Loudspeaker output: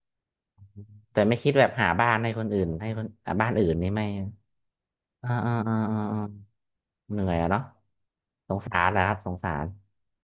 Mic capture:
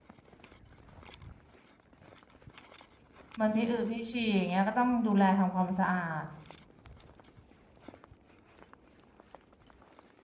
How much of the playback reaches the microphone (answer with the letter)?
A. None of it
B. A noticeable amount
A